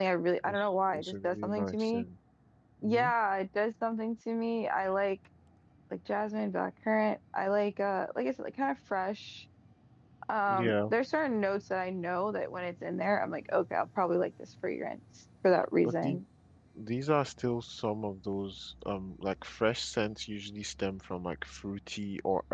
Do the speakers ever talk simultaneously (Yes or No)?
Yes